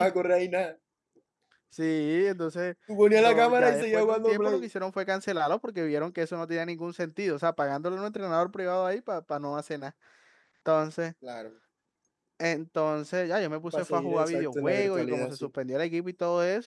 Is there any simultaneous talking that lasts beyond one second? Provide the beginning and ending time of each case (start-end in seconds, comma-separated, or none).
3.1-4.7, 13.7-15.5